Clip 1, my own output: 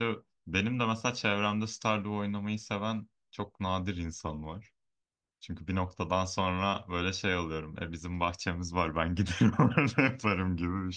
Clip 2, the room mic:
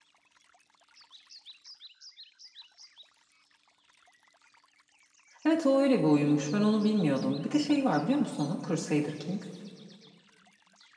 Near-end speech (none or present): present